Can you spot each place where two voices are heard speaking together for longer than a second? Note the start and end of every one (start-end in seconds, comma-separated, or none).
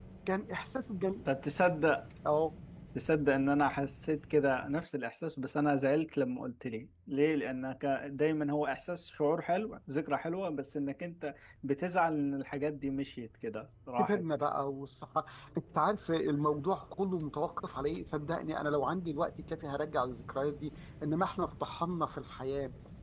none